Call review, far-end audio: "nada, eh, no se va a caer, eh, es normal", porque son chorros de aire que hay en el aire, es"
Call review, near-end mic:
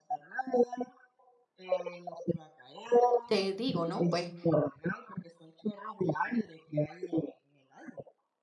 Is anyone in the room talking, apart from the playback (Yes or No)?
Yes